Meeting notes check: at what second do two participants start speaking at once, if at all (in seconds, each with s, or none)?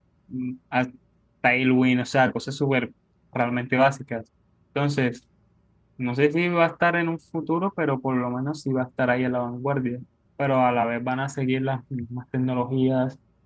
none